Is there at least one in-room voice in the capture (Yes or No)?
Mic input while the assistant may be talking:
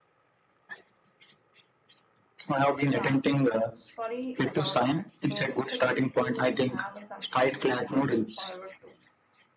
Yes